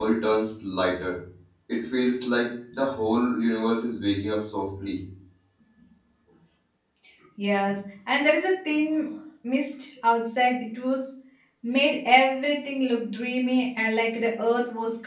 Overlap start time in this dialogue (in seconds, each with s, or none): none